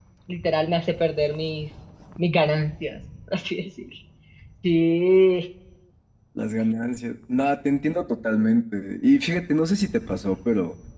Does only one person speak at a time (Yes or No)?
Yes